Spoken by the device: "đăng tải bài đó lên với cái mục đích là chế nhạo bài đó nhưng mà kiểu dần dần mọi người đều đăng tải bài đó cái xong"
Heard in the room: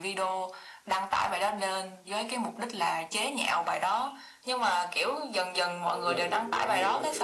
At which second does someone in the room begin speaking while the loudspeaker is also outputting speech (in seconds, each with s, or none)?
5.9 s